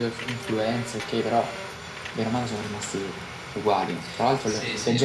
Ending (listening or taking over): listening